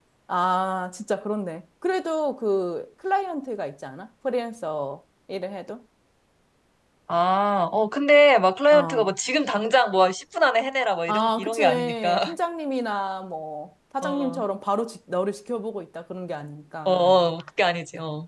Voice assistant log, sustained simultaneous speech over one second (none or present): present